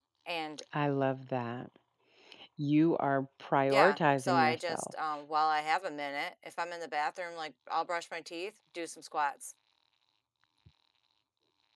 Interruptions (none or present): present